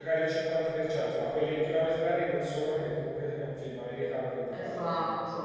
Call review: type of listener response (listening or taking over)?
listening